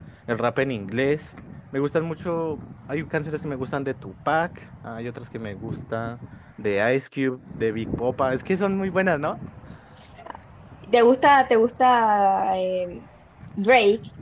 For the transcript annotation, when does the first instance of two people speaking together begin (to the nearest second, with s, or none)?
none